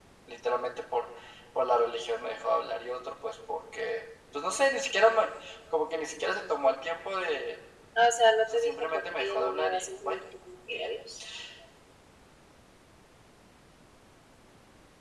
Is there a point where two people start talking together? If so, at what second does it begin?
8.5 s

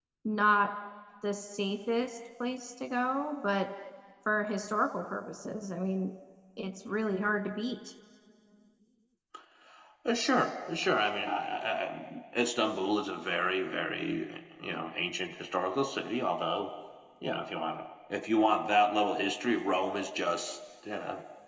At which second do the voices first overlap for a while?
none

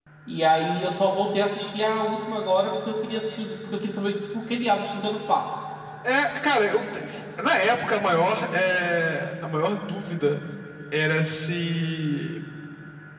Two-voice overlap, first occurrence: none

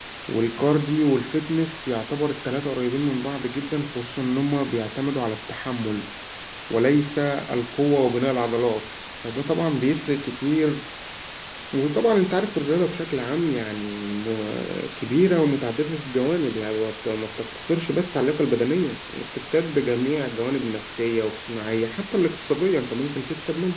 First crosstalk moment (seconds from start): none

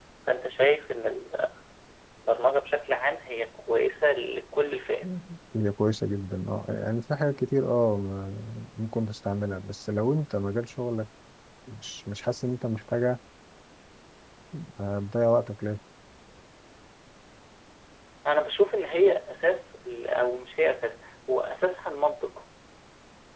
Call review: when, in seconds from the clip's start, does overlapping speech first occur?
none

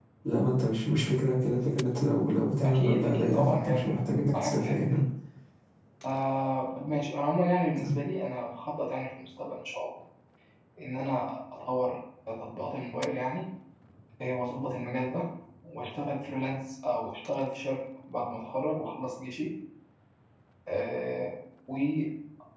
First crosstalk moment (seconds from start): 2.6 s

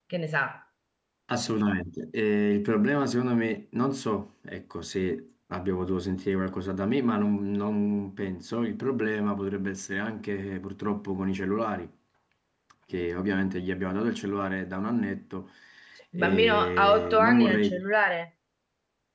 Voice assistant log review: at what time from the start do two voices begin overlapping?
16.2 s

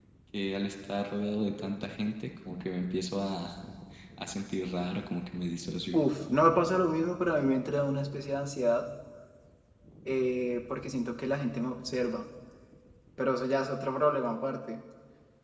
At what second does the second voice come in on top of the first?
none

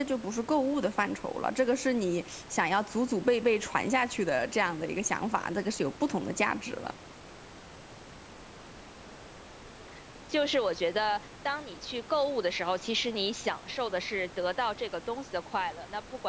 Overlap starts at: none

